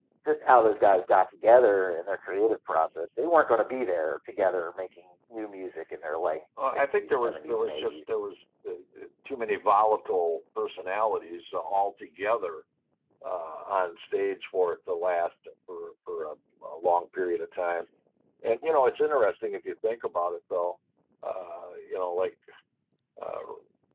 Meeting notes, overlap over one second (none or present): present